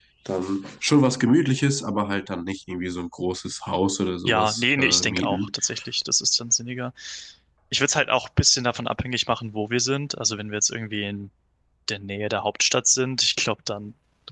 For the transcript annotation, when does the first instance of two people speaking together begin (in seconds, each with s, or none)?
4.3 s